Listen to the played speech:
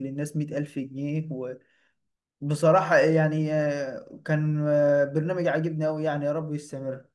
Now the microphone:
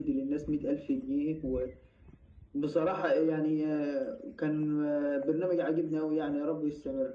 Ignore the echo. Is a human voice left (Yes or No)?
No